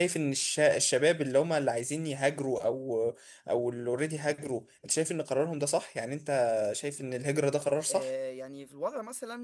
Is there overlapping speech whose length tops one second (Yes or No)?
No